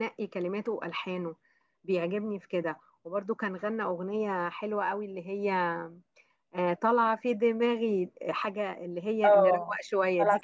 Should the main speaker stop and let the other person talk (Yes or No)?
Yes